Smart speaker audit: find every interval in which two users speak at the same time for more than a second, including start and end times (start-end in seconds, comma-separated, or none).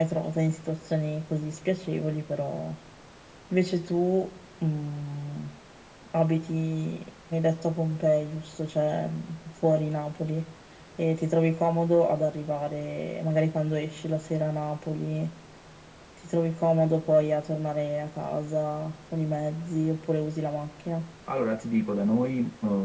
none